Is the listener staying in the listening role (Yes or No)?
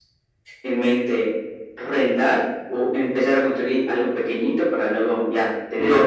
No